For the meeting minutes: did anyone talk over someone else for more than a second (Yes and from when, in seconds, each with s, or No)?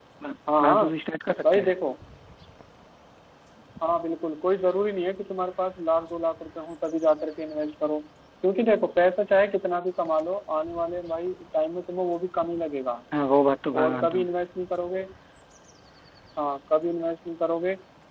No